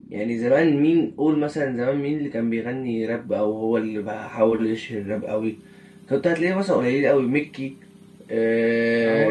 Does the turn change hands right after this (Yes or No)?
Yes